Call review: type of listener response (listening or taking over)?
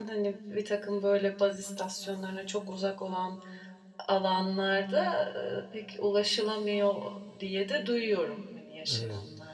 taking over